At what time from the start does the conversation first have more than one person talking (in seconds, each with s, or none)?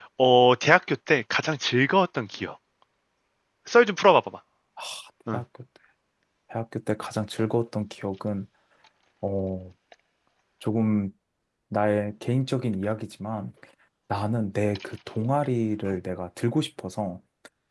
none